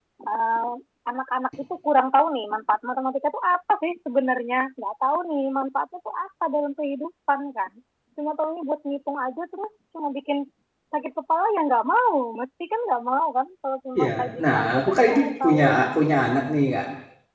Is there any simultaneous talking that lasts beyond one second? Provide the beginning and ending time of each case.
14.0-15.7

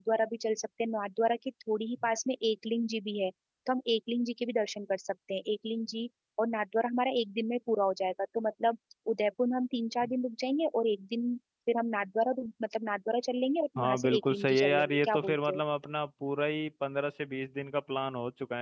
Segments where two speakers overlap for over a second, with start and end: 13.8-15.6

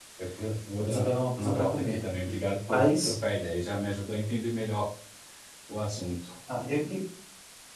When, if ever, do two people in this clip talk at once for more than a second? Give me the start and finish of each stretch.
0.8-2.0

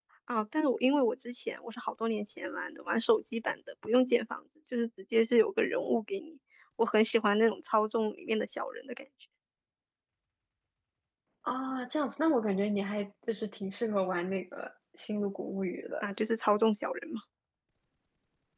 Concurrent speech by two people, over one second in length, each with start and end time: none

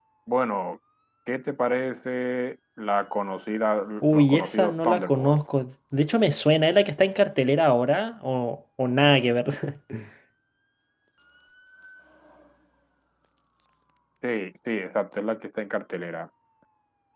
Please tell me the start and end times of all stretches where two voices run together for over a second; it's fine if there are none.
4.0-5.4

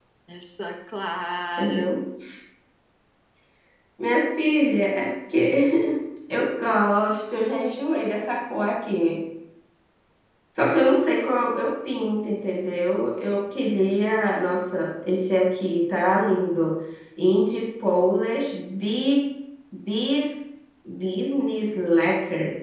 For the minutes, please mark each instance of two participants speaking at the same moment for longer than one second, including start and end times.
none

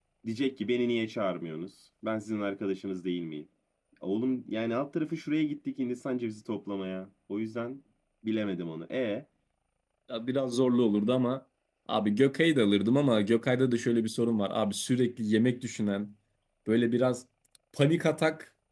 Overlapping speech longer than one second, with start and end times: none

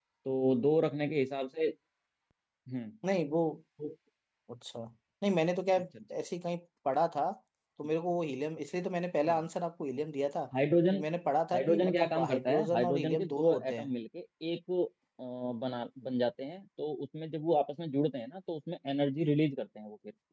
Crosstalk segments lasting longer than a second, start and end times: 11.5-13.9

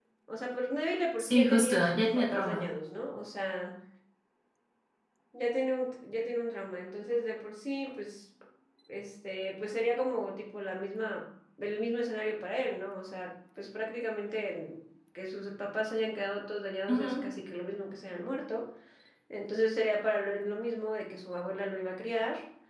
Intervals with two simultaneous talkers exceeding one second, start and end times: 1.2-2.6

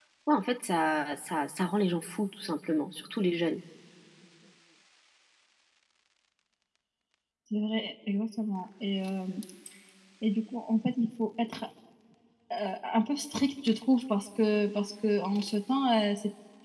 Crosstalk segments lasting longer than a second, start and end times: none

